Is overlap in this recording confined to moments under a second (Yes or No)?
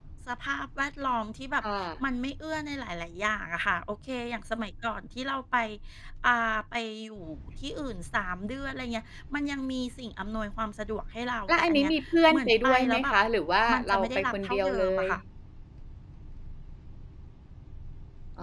No